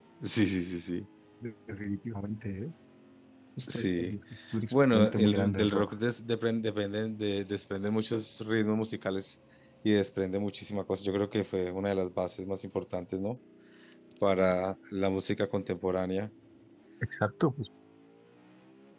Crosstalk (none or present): present